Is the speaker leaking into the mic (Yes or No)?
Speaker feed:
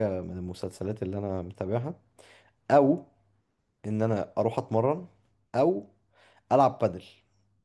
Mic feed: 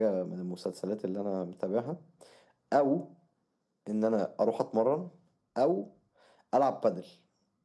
Yes